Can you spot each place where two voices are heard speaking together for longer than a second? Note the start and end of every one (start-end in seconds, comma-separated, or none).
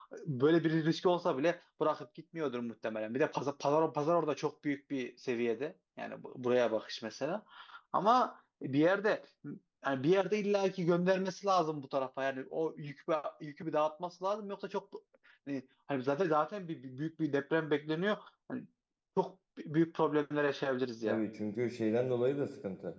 none